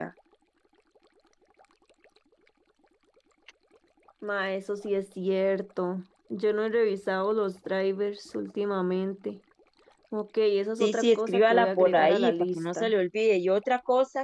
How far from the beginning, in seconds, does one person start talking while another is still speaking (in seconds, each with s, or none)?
10.8 s